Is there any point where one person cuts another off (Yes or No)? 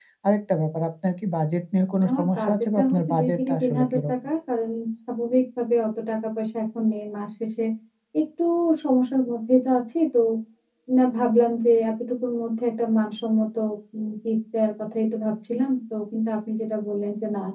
Yes